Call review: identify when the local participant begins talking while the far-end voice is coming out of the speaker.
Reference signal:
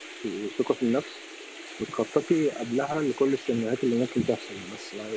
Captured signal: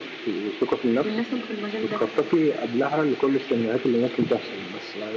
1.0 s

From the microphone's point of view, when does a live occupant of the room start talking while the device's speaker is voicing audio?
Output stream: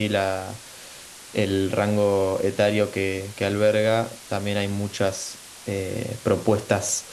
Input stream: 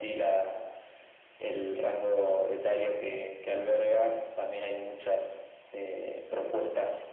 none

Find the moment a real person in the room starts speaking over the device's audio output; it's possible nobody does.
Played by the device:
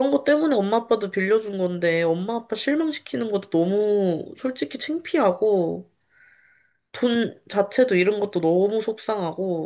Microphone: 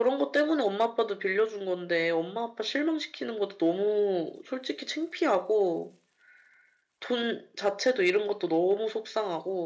none

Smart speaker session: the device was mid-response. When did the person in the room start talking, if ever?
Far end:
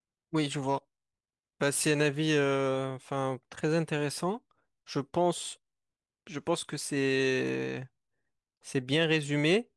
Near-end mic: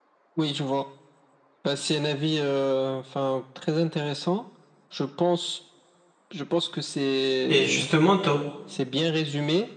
7.5 s

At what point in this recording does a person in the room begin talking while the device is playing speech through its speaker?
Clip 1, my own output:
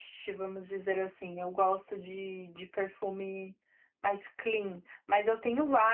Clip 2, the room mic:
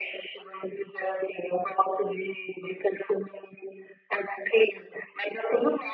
none

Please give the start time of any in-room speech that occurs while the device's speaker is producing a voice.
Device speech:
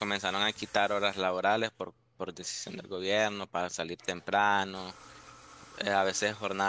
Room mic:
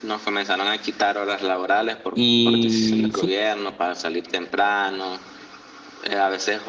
2.1 s

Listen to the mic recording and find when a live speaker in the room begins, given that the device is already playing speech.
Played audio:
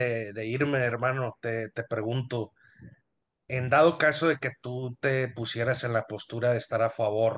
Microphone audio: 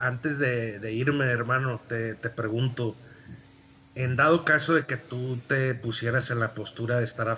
none

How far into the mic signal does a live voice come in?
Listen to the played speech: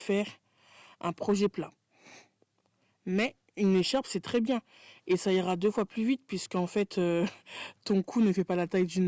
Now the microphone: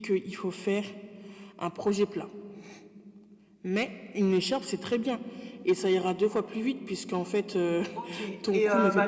7.9 s

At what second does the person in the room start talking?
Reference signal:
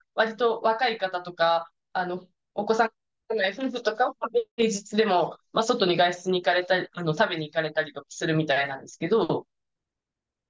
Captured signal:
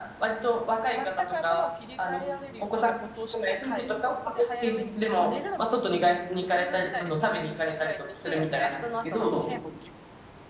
0.9 s

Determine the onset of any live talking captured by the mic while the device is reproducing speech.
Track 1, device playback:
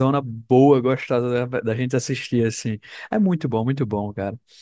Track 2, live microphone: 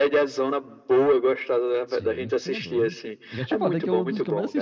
1.9 s

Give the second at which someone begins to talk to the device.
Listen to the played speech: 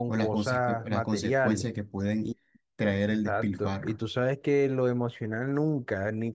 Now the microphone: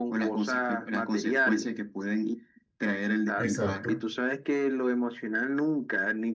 3.4 s

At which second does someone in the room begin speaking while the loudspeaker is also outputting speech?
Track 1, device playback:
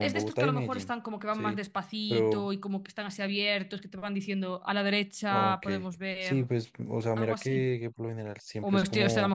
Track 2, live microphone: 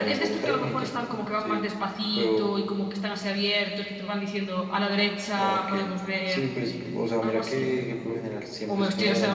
none

